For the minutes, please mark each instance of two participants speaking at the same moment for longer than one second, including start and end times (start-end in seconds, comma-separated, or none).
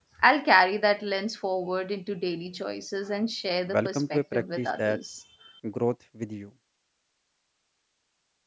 3.7-5.0